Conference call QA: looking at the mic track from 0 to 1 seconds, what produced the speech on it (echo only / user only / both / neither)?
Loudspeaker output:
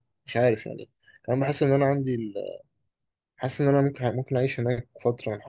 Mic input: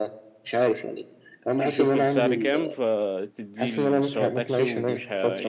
echo only